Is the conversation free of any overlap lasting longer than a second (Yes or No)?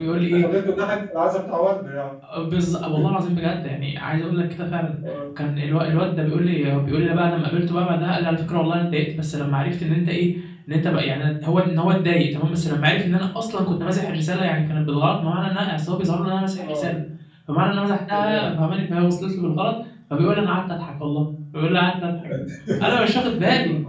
Yes